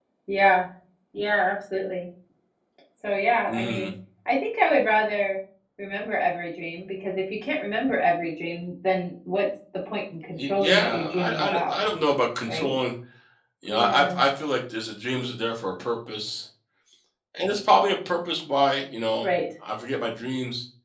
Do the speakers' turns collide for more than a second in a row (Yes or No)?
Yes